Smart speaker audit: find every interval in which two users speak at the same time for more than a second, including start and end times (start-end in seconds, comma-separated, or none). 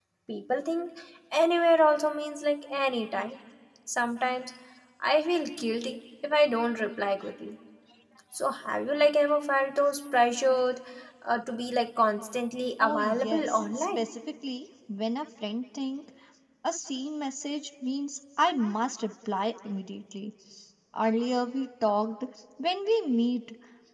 12.8-14.0